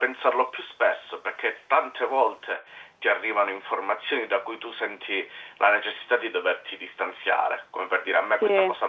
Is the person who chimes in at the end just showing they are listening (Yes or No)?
Yes